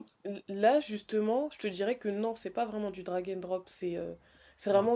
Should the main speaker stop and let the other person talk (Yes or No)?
No